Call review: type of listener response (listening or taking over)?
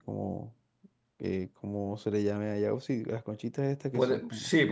taking over